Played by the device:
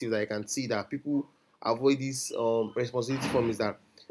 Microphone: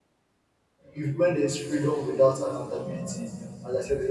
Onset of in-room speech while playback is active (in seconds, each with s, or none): 0.9 s